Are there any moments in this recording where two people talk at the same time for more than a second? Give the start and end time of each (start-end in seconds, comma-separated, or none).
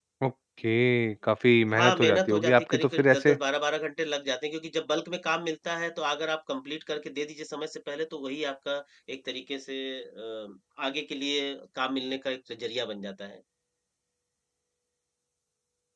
1.7-3.4